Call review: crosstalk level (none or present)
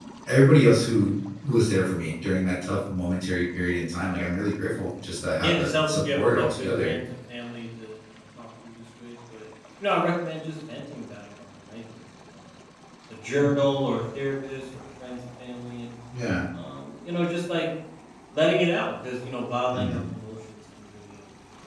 present